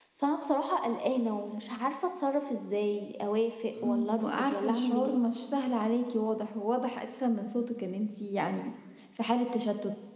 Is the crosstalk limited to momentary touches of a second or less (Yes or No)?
No